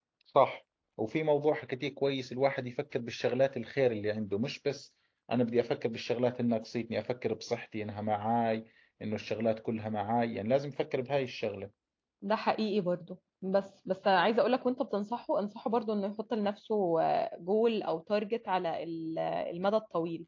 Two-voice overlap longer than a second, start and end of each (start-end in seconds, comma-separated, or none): none